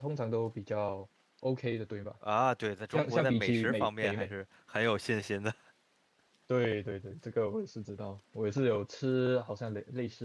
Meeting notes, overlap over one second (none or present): present